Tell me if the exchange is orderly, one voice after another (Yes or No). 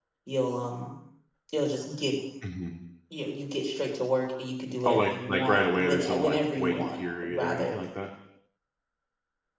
No